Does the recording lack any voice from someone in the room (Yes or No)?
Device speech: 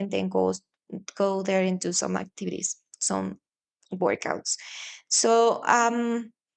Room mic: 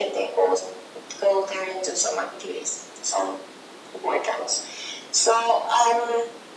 Yes